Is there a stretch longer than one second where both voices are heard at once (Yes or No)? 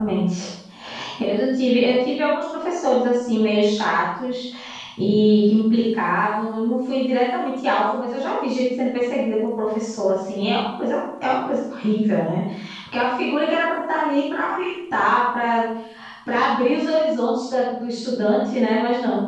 No